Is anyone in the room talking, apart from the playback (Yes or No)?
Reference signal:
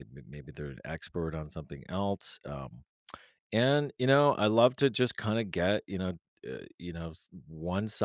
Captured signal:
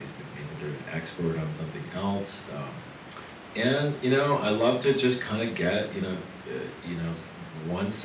No